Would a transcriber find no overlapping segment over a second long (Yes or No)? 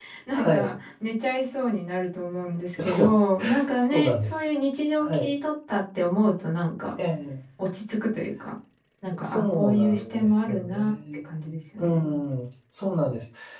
No